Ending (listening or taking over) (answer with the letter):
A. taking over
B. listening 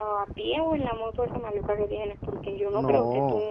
B